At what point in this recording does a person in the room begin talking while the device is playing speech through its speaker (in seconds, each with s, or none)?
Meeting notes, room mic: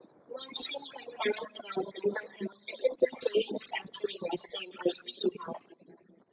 none